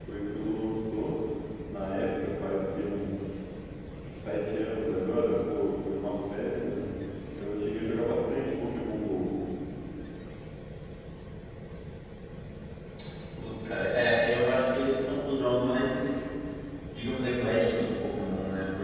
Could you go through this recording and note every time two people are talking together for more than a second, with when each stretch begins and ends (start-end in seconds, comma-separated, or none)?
none